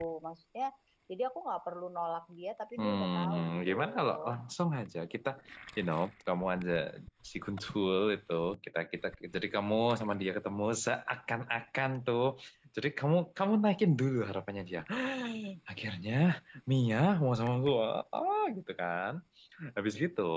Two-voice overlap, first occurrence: 2.8 s

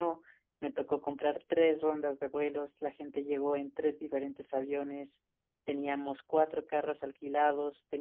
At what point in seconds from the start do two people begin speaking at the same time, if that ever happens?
none

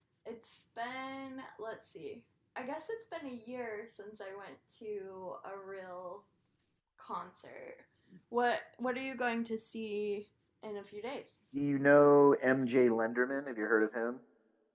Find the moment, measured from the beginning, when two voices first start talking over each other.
none

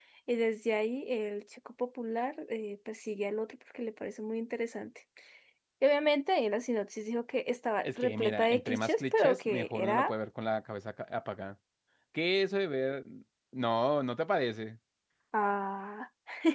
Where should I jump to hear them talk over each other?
7.8 s

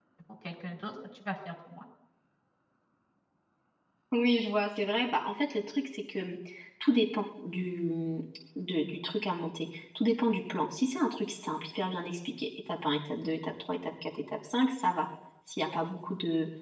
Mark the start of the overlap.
none

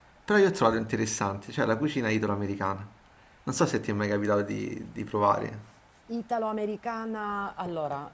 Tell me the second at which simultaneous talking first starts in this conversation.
none

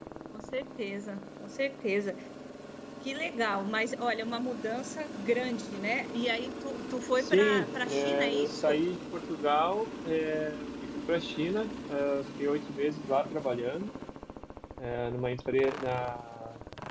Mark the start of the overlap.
7.2 s

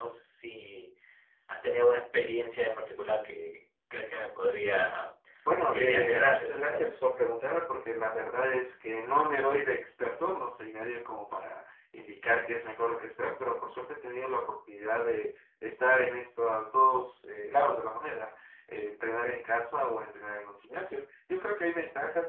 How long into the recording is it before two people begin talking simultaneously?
5.7 s

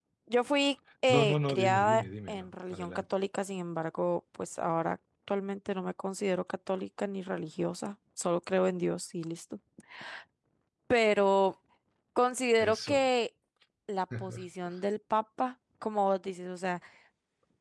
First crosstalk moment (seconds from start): 1.1 s

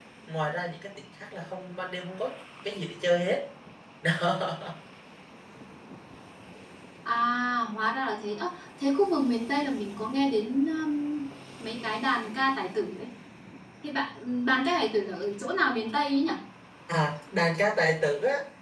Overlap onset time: none

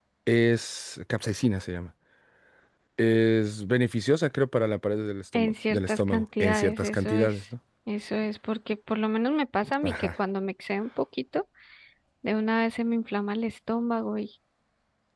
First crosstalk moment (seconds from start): 5.3 s

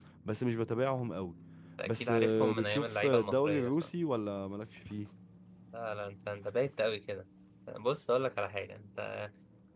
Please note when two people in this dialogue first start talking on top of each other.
1.8 s

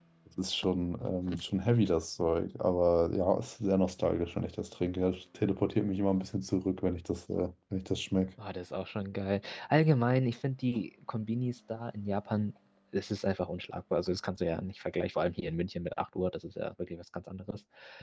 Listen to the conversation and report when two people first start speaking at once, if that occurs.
none

